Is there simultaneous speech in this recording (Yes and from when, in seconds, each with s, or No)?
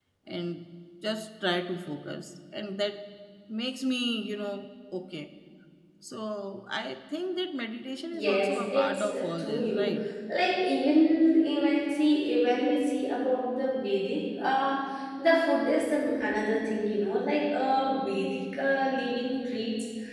Yes, from 8.1 s